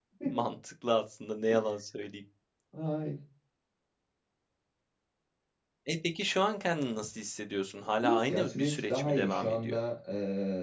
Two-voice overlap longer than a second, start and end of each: 8.0-9.8

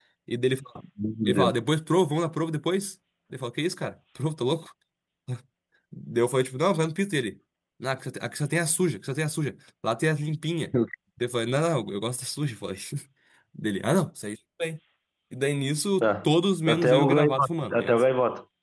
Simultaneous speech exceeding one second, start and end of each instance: 16.7-18.0

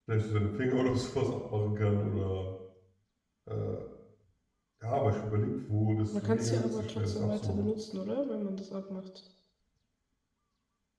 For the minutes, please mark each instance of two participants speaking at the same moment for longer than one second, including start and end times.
6.2-7.7

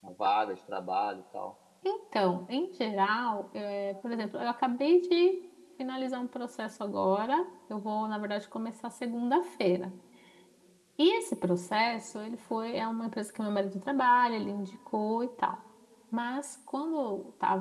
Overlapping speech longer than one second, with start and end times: none

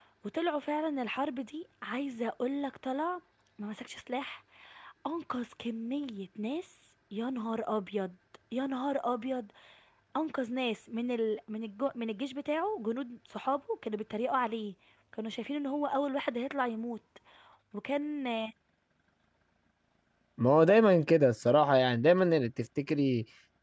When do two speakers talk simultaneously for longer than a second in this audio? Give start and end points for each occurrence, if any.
none

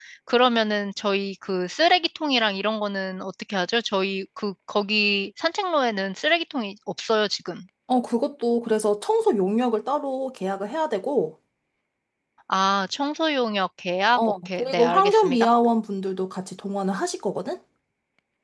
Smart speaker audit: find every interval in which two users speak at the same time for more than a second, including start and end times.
14.2-15.5

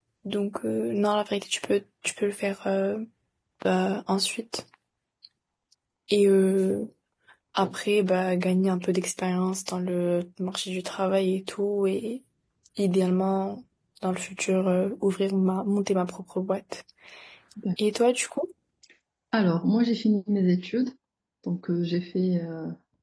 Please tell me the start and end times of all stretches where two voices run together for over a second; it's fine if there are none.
none

